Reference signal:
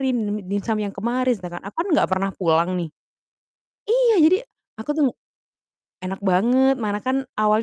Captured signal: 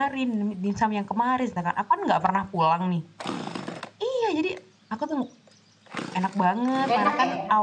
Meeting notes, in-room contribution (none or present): present